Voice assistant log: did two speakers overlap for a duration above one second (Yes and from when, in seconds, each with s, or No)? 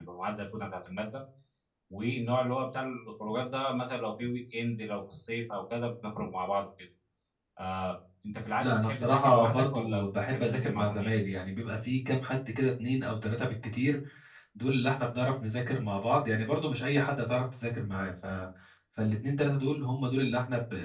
Yes, from 8.6 s